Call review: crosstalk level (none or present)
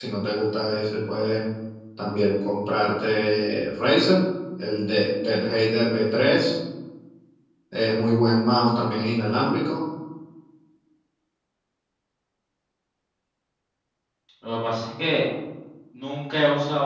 none